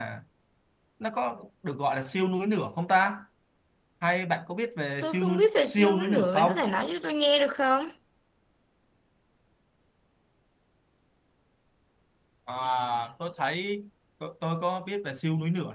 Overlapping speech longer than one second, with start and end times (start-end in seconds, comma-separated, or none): 5.0-6.5